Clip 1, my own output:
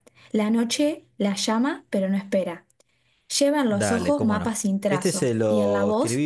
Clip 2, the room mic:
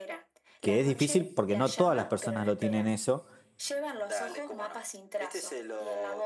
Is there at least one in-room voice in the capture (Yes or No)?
Yes